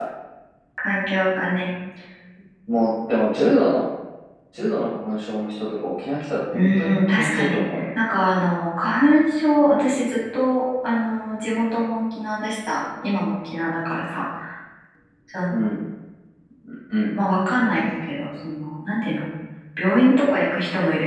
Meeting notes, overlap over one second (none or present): present